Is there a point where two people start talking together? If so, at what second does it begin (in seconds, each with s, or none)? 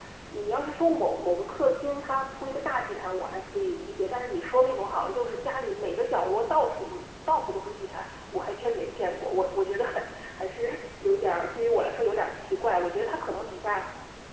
none